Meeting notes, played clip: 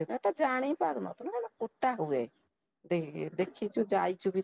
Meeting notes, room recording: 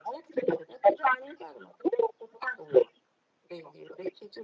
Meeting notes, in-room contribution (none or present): none